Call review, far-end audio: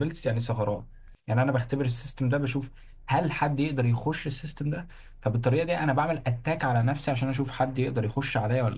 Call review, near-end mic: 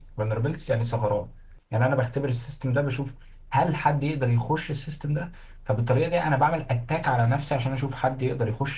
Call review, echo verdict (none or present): present